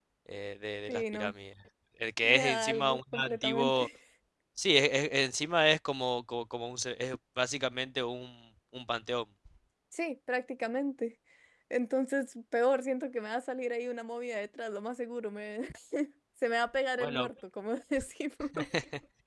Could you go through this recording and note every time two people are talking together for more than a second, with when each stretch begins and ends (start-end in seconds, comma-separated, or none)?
2.2-3.9